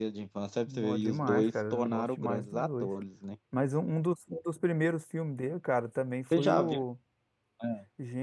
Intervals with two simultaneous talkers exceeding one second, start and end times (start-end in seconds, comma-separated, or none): 0.7-2.9